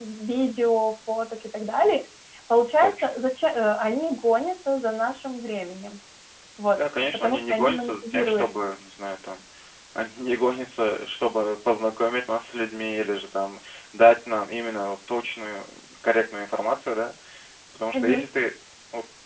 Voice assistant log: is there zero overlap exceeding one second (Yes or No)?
No